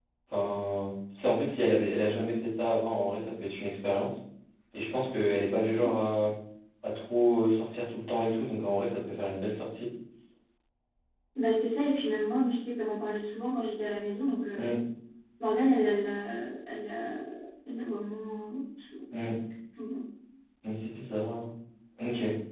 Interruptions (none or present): none